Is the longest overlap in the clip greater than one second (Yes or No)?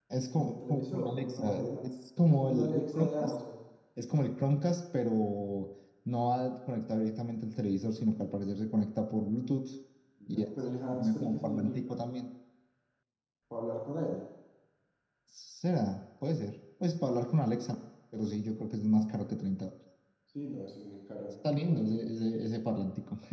Yes